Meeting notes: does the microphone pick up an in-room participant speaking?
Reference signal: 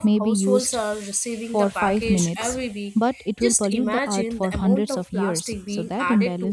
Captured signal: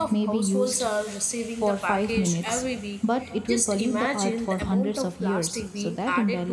No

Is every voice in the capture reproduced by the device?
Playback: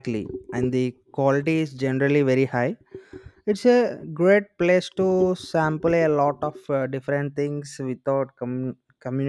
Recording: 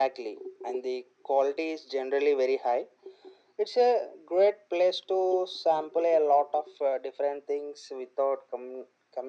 Yes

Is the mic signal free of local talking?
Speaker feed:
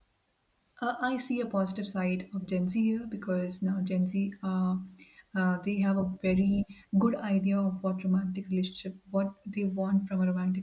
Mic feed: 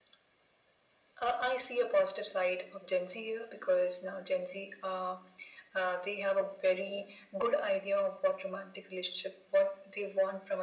Yes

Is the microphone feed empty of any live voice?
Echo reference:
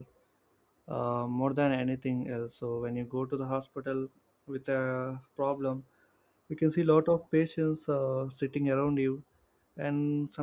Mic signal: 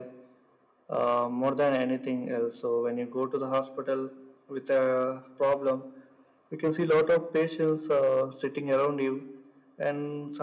Yes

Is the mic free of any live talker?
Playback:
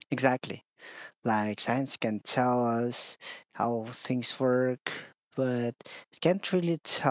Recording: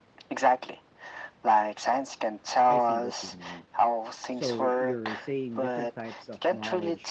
No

